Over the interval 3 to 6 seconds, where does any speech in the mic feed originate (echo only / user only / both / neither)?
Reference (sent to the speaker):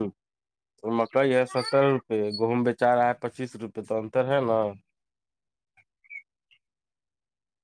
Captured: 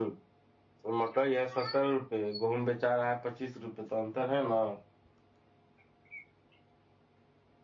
echo only